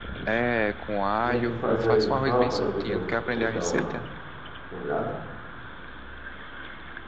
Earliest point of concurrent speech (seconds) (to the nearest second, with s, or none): 1 s